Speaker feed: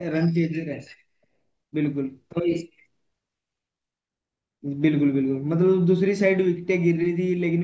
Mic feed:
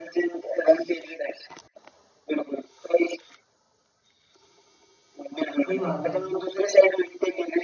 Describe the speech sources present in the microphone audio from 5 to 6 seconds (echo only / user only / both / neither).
both